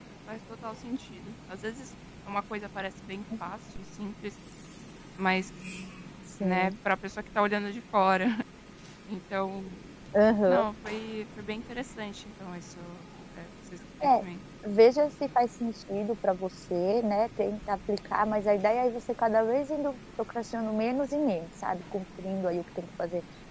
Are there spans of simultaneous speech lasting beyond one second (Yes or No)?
No